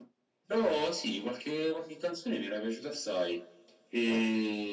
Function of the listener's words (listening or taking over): listening